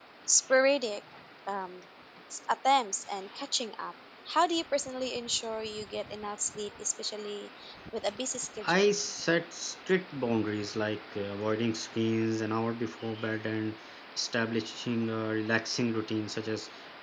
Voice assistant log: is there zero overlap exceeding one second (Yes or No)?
Yes